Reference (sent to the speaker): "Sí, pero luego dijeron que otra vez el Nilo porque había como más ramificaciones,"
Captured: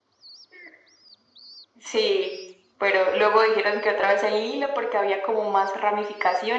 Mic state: echo only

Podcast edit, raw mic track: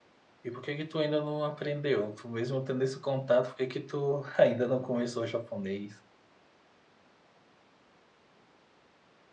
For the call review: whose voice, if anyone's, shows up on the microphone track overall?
user only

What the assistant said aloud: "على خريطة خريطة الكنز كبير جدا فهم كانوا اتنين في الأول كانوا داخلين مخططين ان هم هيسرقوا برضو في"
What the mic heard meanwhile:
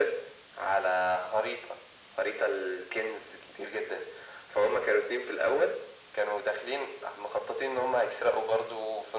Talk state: echo only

